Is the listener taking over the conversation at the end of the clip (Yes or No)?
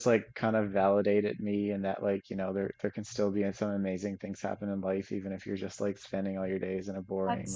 Yes